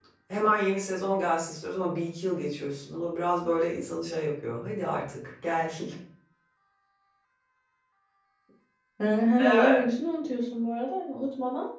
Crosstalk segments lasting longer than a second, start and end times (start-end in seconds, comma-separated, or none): none